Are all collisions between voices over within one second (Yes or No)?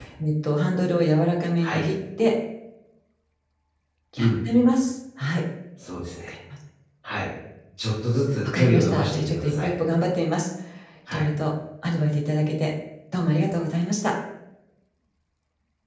No